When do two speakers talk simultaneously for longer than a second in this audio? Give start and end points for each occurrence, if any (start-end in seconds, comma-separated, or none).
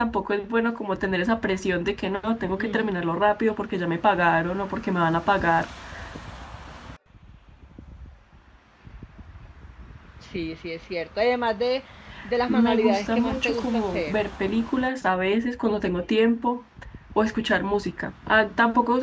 12.5-14.2